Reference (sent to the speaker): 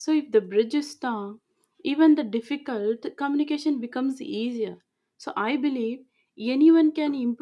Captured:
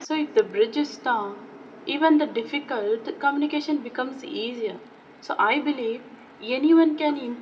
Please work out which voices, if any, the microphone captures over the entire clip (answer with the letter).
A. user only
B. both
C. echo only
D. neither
C